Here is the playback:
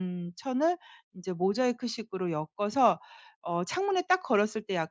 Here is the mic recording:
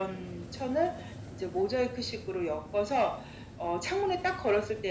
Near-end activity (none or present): none